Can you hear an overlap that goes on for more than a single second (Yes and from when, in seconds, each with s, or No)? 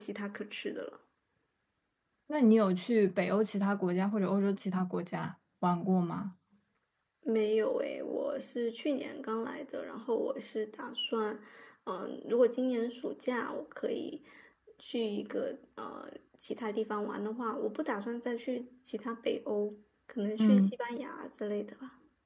No